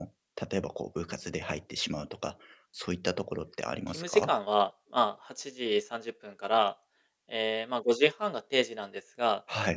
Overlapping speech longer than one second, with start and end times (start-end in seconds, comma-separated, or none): none